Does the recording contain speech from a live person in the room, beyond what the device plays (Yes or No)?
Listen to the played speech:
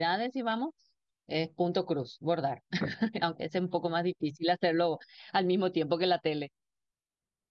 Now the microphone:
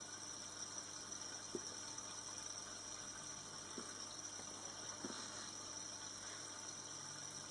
No